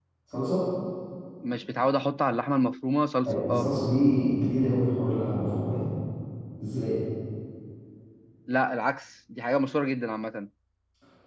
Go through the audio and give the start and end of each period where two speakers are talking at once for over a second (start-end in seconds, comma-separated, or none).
none